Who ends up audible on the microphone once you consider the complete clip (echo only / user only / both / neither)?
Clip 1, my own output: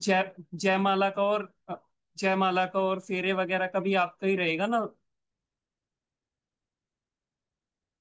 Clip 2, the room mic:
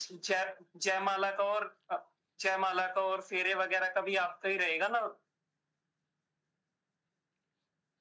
echo only